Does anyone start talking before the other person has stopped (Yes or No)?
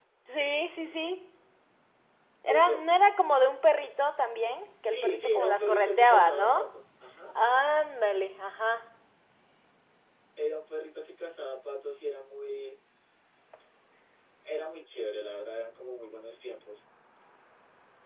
Yes